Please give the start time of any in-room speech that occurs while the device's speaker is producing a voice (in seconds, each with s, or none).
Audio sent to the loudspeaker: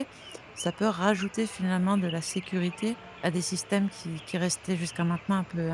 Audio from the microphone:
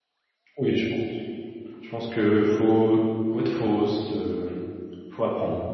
0.6 s